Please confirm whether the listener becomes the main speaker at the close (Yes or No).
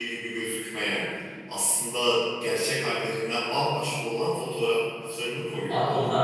Yes